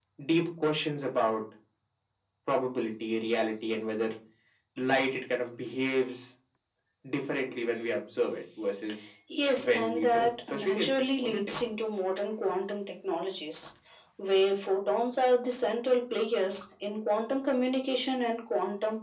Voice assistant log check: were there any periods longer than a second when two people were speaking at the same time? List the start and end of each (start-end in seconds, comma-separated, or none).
9.6-11.6